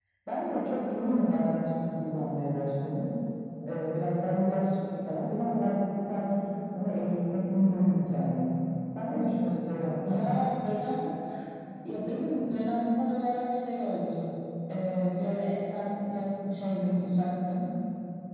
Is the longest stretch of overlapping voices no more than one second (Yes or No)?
Yes